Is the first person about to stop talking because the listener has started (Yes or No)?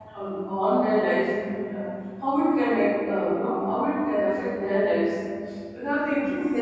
No